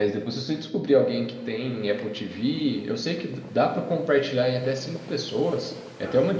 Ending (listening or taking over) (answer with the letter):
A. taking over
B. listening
B